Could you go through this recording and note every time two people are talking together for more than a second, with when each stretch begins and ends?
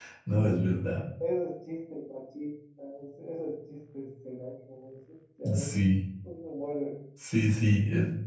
none

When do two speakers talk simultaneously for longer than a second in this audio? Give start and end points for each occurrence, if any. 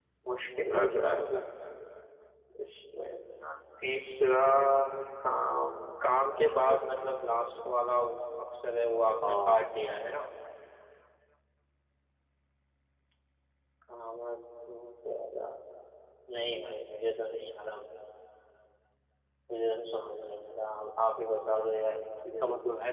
none

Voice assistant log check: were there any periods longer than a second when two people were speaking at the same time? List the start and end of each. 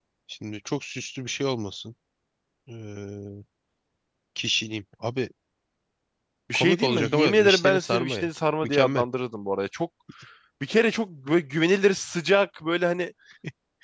6.5-8.3

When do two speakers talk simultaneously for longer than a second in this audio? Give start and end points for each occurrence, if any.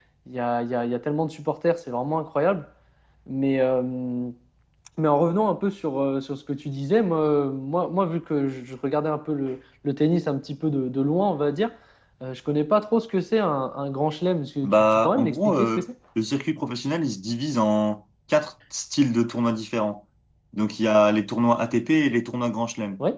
14.6-15.8

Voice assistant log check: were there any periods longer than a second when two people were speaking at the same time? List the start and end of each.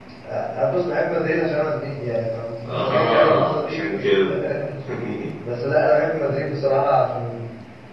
2.6-4.1

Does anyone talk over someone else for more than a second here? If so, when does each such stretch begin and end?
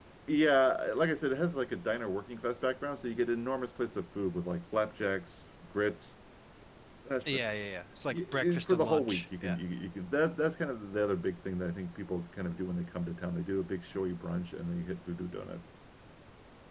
8.1-9.6

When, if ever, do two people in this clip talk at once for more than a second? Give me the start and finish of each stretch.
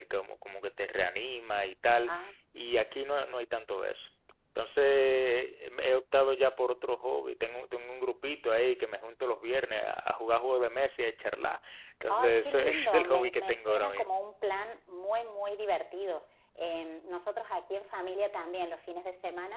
12.1-14.2

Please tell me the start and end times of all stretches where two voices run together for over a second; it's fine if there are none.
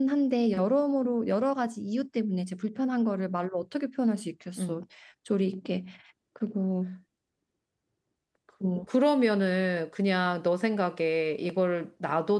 none

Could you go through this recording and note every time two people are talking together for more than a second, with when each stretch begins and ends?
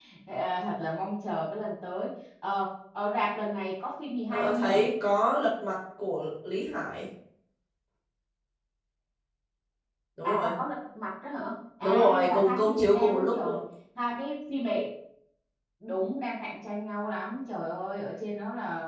11.8-13.6

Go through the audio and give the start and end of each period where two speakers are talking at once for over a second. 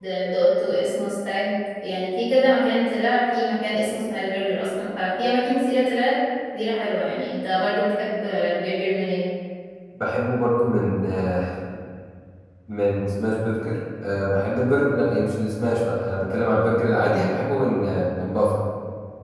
none

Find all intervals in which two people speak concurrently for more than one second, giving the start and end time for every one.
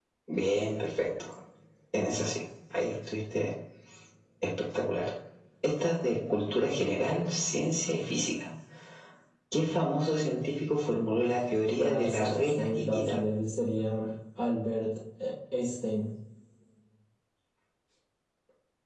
11.8-13.2

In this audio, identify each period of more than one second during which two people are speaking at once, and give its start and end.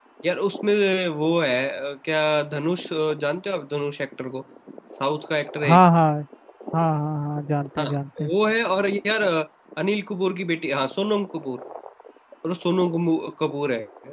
none

